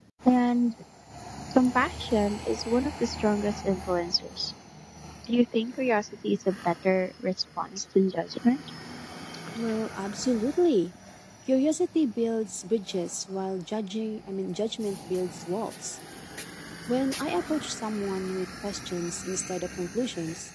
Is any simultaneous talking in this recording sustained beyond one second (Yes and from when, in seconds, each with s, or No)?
No